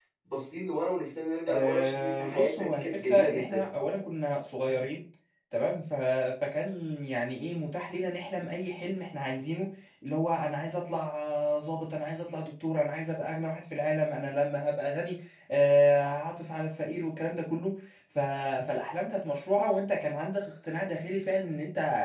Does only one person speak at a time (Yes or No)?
No